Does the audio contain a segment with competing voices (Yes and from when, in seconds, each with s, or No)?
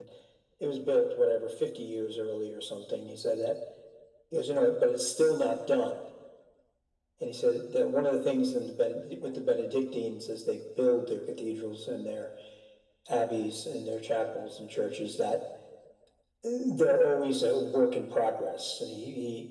No